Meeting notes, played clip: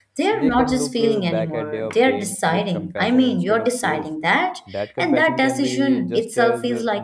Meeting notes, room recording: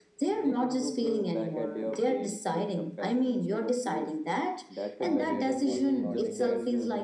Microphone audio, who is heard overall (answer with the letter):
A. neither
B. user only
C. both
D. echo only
C